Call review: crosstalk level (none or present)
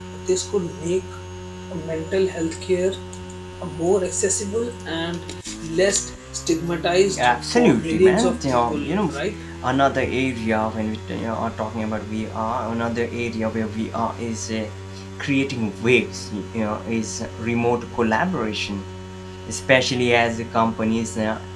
present